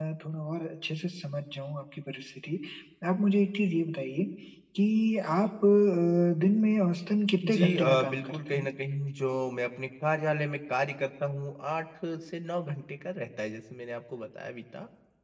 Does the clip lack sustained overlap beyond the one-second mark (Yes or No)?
No